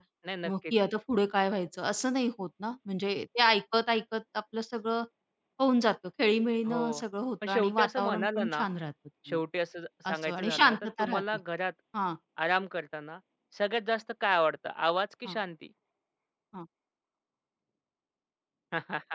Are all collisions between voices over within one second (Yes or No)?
No